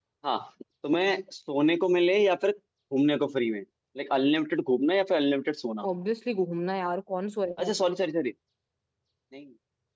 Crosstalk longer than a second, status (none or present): none